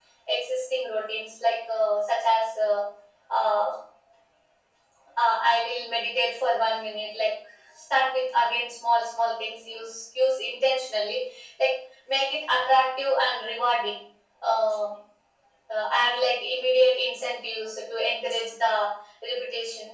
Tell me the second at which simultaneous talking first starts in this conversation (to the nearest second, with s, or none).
none